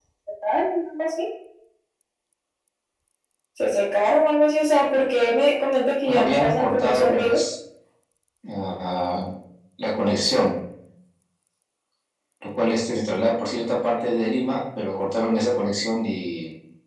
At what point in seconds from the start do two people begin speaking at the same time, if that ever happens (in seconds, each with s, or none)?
6.0 s